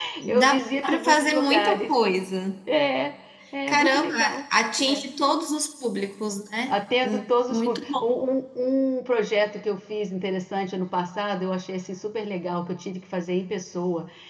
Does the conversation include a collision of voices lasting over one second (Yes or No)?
Yes